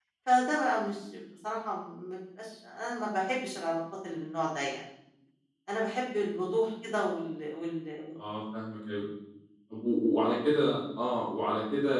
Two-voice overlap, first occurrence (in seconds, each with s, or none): none